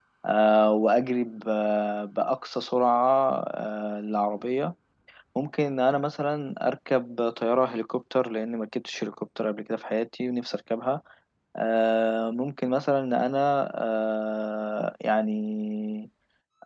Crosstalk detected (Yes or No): No